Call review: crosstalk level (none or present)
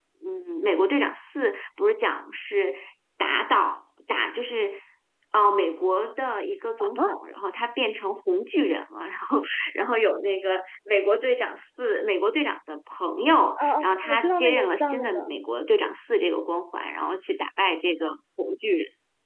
present